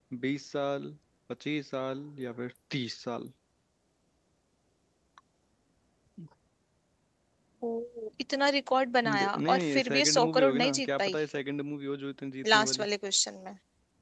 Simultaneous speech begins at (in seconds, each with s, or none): 9.2 s